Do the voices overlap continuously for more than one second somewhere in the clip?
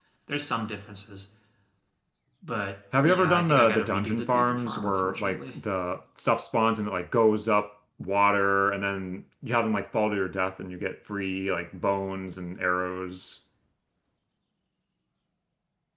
Yes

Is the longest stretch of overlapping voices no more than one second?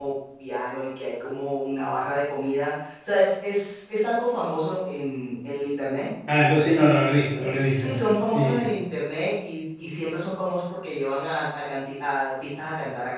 No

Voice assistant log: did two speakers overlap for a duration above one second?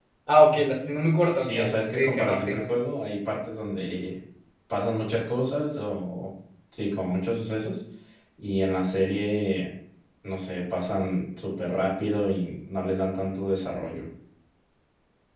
Yes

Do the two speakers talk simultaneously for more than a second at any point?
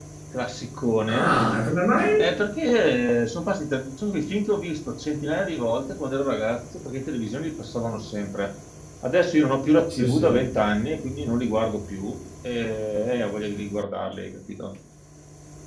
No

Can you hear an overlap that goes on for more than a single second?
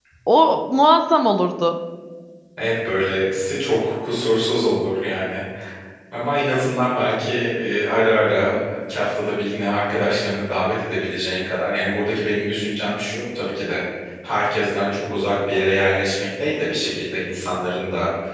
No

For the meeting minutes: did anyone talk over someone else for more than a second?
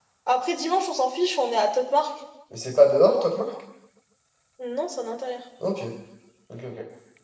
No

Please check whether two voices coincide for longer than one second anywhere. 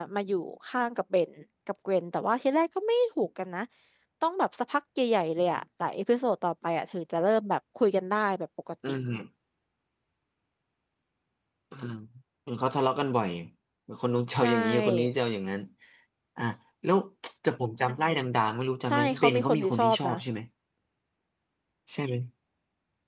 Yes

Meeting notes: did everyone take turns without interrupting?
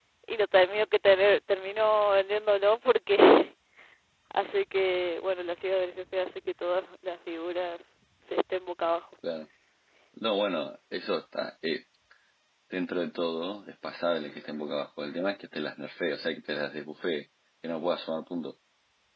Yes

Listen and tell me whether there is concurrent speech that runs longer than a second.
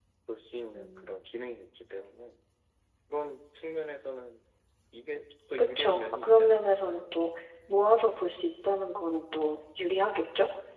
Yes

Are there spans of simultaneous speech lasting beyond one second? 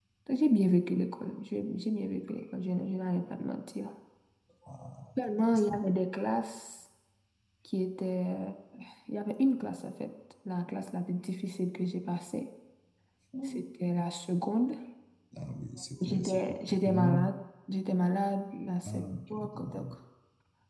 Yes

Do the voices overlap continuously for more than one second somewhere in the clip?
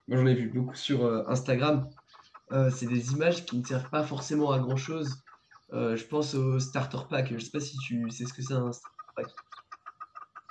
No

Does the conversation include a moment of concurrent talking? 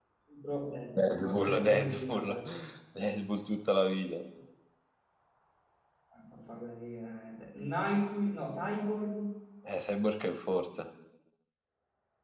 Yes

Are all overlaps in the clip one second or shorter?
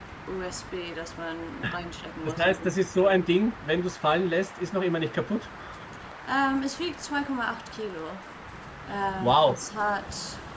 Yes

